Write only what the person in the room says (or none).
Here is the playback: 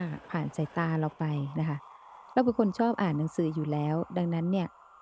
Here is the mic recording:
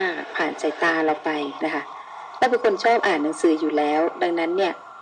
none